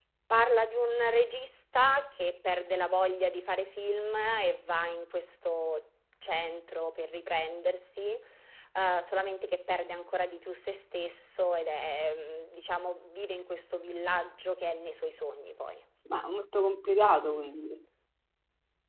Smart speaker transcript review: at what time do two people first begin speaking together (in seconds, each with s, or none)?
none